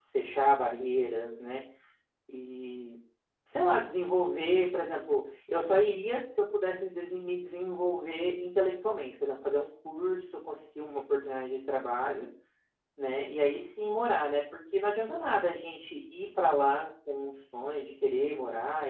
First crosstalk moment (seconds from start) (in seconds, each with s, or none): none